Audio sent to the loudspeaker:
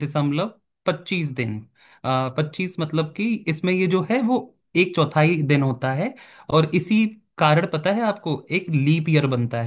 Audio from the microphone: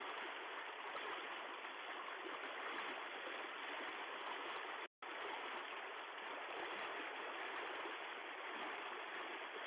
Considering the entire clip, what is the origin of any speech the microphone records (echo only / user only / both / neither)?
neither